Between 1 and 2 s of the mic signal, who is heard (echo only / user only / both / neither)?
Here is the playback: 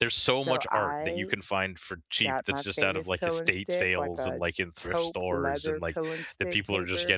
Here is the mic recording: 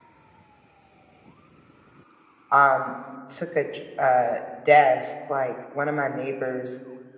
neither